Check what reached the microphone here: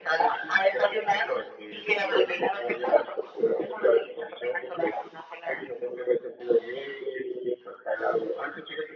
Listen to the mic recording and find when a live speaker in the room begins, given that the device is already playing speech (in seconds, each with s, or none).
none